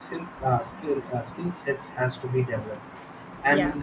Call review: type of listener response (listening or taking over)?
listening